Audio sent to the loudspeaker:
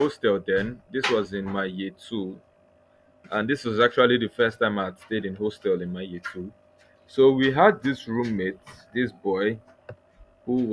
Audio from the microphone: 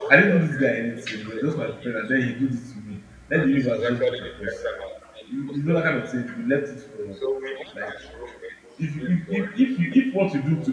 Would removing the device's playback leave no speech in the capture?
No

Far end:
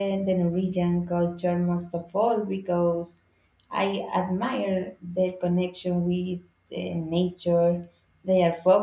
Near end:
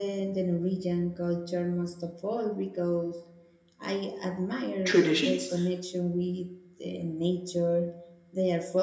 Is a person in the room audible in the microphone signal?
Yes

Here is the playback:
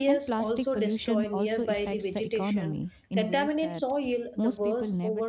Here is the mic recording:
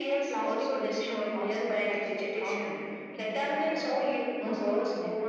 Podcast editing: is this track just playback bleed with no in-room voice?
No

